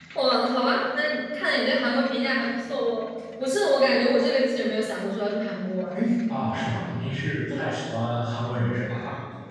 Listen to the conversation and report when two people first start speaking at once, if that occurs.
none

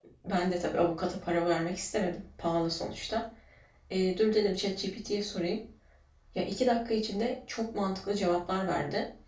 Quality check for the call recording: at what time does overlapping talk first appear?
none

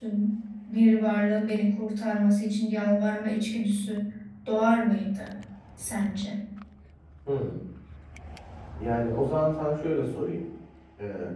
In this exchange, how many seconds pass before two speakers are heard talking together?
none

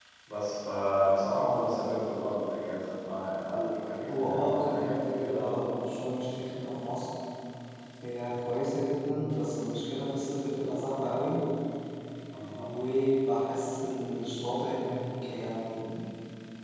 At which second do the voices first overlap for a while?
4.0 s

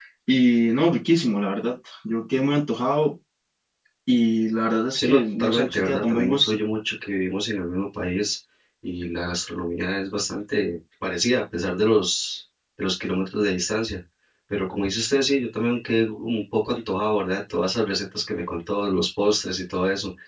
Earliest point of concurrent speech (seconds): 5.0 s

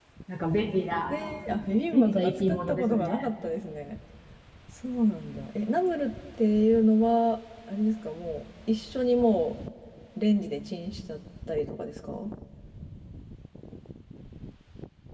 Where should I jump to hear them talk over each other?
1.9 s

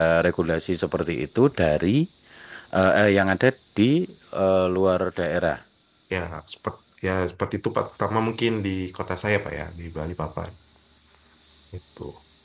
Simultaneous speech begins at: none

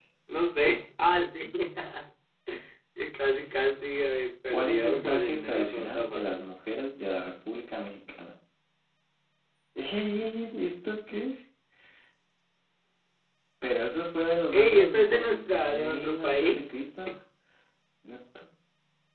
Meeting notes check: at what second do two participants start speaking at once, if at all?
4.5 s

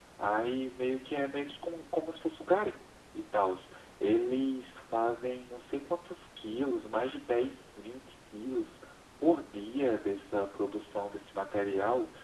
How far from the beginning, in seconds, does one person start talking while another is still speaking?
none

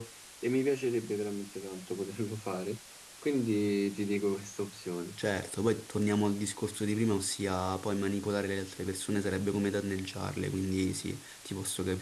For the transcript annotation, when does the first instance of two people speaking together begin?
none

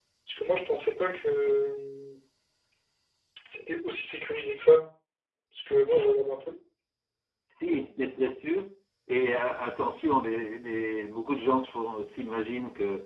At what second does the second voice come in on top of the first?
none

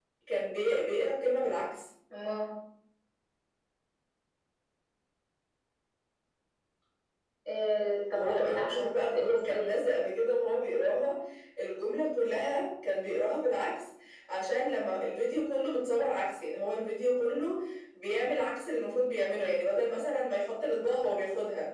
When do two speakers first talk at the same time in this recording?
8.1 s

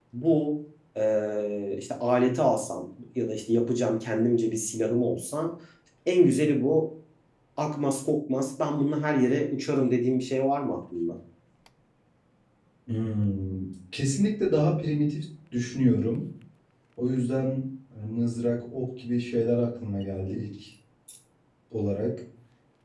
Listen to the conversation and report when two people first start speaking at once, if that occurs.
none

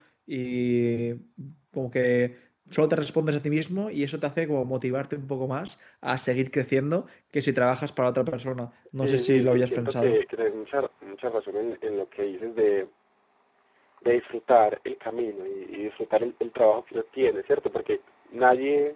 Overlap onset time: 8.9 s

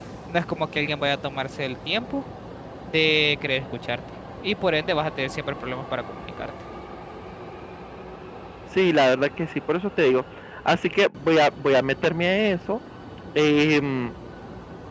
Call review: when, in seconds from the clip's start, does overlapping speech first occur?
none

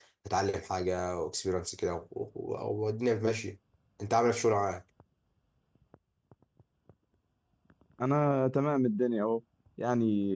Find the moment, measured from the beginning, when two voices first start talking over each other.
none

